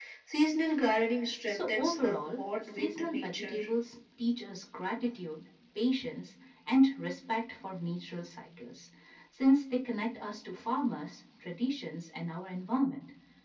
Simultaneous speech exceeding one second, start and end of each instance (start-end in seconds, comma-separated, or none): 1.5-3.6